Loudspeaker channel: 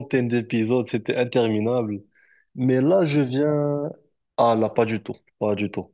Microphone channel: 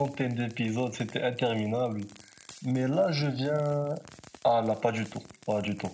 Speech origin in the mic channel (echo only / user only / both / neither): echo only